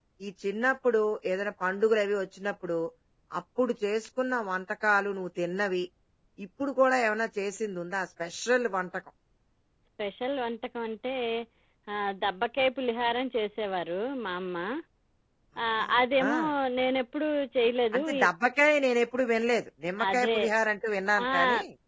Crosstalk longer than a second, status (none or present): none